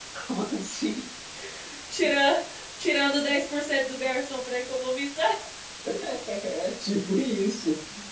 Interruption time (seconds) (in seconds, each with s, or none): none